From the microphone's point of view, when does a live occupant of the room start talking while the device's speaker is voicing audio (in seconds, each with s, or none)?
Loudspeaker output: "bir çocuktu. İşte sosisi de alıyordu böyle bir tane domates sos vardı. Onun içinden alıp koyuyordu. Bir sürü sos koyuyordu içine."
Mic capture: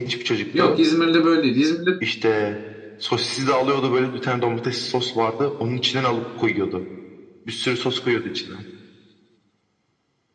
0.5 s